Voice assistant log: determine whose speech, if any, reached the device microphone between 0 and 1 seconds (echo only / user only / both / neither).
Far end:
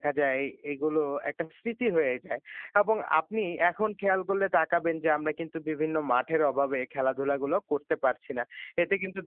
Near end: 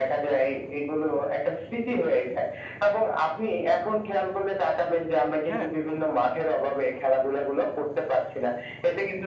echo only